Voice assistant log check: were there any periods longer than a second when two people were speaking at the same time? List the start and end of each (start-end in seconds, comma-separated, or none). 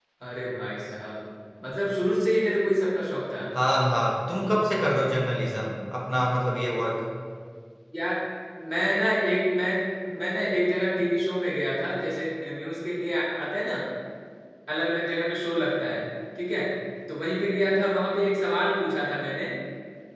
none